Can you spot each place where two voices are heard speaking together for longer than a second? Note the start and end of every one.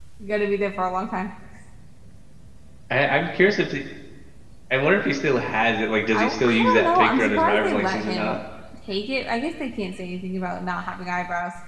6.1-8.4

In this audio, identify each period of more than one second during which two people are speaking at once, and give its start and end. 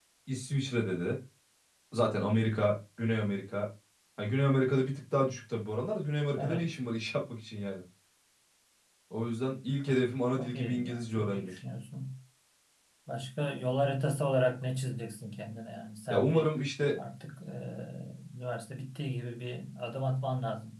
10.3-11.6

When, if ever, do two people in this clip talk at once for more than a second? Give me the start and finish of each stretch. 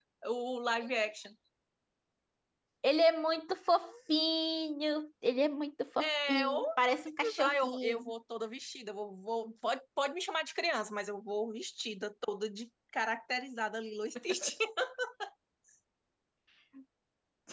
6.0-8.1

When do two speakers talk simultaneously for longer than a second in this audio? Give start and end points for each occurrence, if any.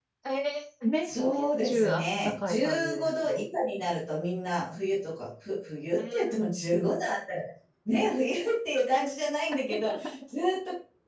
1.0-3.4

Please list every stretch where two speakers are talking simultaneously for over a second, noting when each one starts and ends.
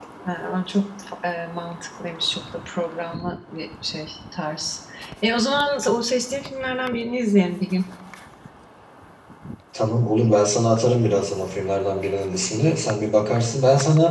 none

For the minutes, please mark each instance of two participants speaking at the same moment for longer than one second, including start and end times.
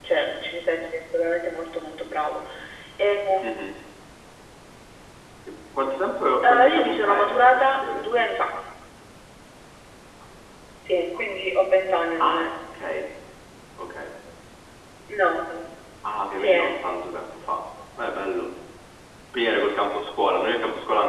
6.4-8.2

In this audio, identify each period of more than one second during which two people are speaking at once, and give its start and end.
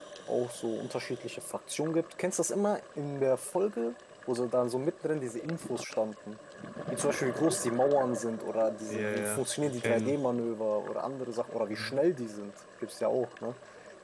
8.9-10.2

